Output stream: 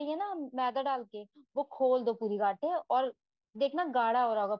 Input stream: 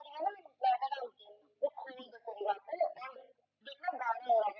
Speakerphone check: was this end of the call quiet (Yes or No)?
Yes